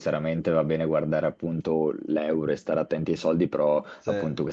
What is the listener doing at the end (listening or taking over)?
listening